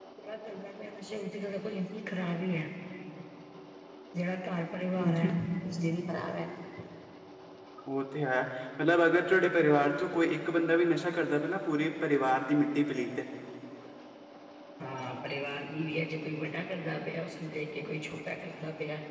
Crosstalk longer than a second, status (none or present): none